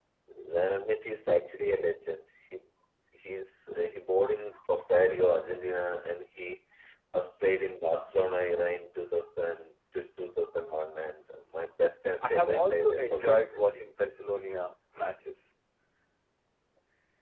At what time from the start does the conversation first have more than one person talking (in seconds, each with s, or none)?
12.2 s